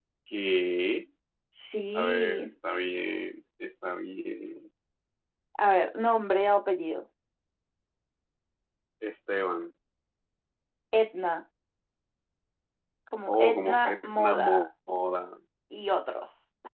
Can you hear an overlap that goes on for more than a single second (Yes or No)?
Yes